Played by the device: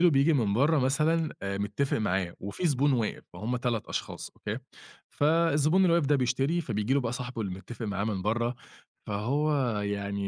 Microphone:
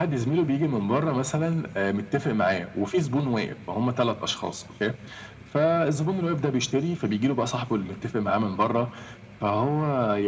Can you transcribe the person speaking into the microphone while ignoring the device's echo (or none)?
none